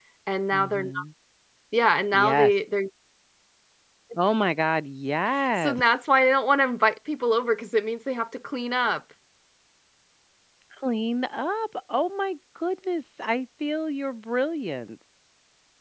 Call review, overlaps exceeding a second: none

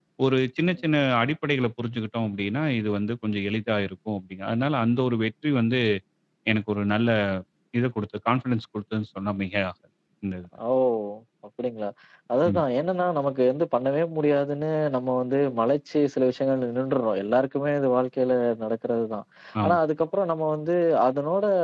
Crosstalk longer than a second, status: none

